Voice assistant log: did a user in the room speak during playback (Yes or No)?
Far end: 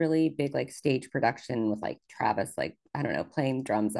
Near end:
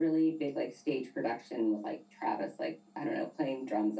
No